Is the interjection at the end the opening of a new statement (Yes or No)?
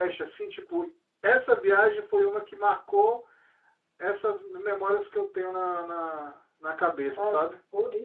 Yes